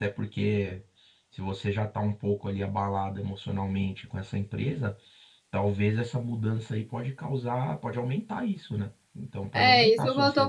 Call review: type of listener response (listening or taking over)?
taking over